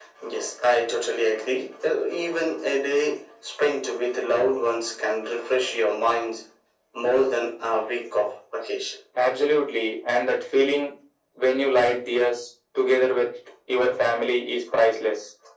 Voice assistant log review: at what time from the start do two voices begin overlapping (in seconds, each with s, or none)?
none